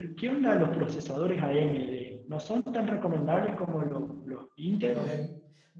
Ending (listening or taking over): taking over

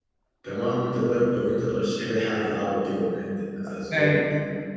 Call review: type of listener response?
taking over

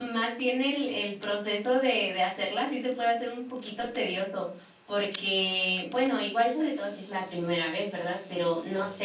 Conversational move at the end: listening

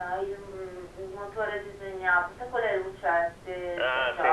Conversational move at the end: taking over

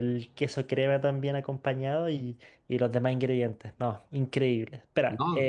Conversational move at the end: listening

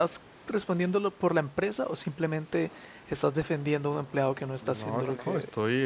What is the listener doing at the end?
taking over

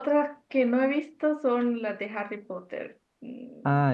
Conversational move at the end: taking over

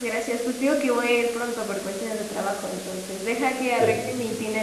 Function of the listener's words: listening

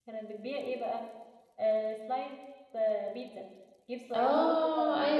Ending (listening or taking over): taking over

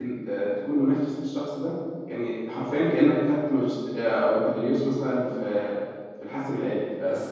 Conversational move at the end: taking over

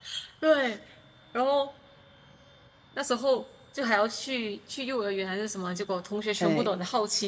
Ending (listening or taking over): listening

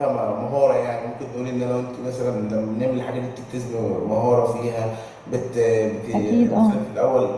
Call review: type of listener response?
listening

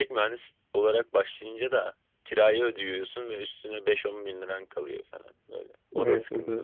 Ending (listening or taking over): taking over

